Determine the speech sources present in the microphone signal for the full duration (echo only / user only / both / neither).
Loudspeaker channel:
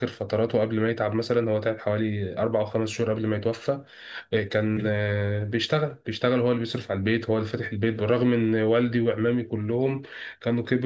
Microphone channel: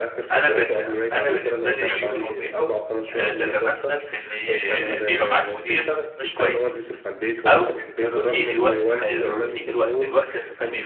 both